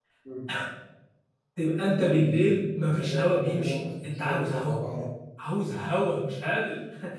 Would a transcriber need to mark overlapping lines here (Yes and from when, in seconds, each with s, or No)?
Yes, from 2.0 s